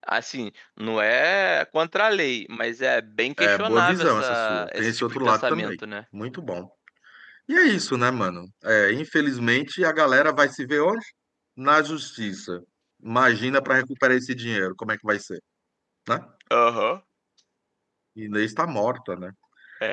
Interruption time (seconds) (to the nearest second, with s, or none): 3 s